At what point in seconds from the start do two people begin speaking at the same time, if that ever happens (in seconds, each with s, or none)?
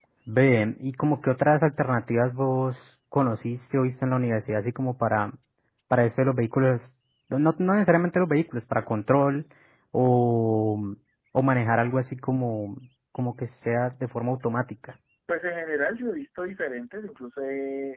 none